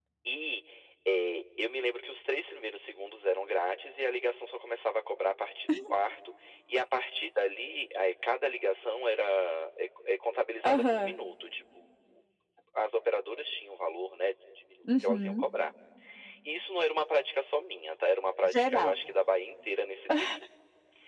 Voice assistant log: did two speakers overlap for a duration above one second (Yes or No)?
No